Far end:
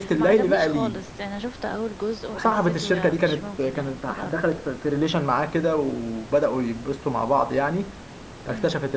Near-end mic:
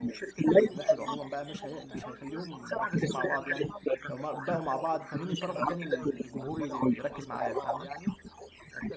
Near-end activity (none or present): present